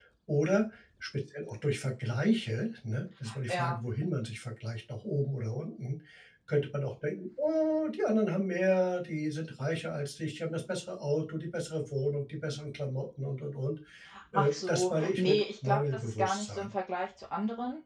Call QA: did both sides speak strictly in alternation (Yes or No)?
No